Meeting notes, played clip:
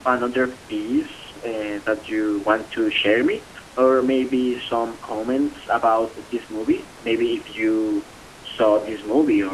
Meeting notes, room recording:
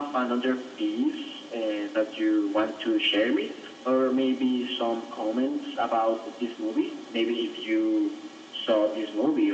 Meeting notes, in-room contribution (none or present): none